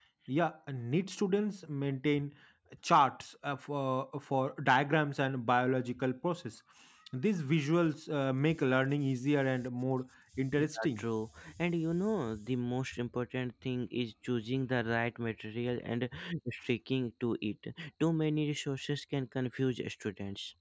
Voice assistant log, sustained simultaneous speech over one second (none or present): none